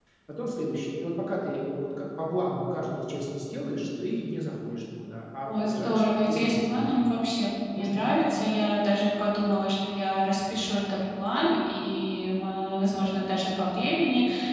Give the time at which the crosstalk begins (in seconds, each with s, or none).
5.4 s